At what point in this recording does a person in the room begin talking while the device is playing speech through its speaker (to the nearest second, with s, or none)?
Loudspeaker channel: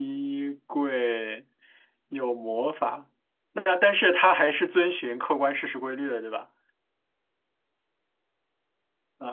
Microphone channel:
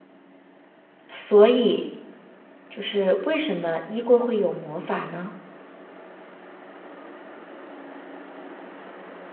1 s